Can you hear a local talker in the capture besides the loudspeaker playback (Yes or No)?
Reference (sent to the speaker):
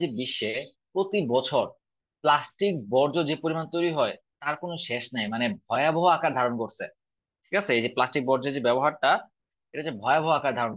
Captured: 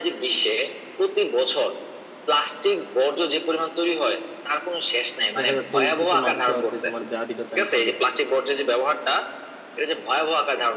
Yes